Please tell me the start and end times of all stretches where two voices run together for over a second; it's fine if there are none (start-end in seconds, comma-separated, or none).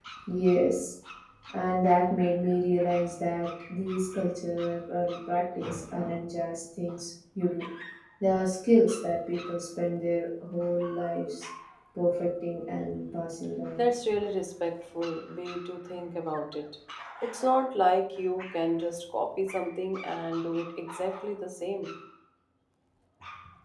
none